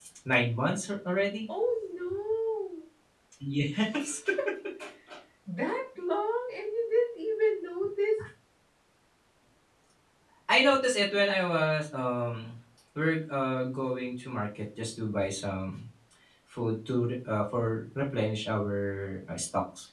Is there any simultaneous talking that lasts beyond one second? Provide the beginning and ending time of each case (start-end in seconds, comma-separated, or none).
none